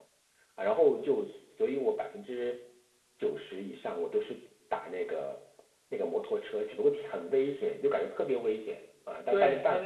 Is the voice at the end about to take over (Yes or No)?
Yes